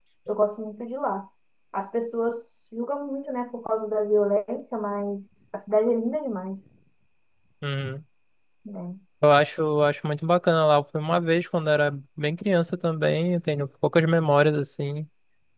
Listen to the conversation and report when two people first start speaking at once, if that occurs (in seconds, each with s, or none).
none